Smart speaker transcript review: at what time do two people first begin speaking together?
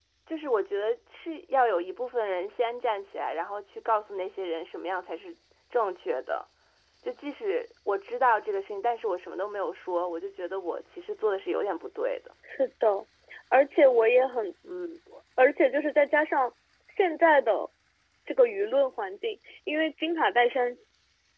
none

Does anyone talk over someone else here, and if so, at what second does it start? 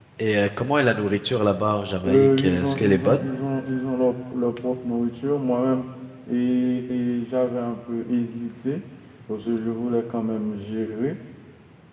2.0 s

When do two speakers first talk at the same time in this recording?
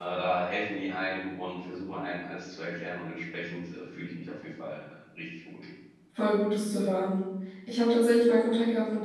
none

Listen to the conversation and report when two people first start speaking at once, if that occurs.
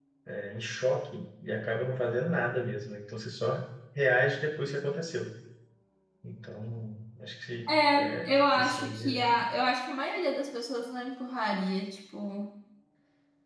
7.7 s

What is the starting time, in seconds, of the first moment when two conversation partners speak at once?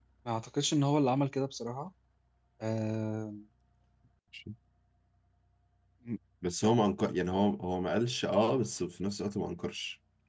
none

